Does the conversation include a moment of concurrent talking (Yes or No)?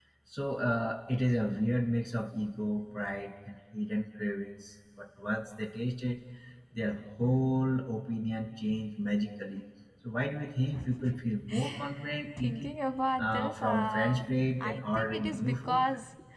Yes